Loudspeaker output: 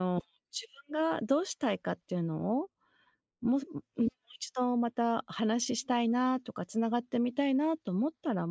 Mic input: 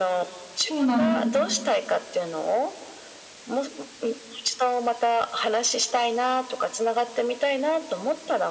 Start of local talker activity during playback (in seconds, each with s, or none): 0.5 s